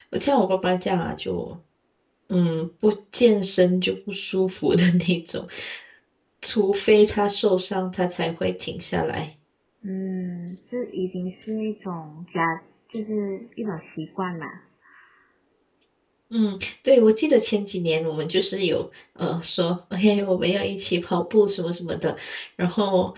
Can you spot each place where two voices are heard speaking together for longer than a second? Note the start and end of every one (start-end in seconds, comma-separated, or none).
none